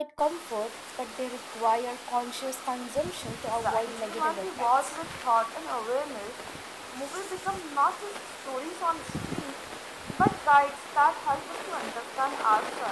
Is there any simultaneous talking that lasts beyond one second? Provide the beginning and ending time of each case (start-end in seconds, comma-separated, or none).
3.6-5.0